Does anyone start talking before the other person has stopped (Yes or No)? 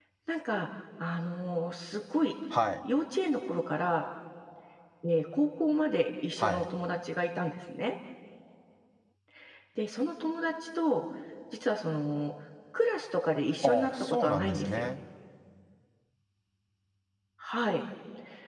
Yes